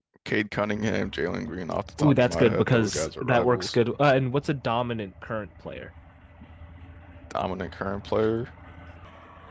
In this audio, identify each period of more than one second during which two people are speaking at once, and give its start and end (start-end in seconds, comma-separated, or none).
2.0-3.8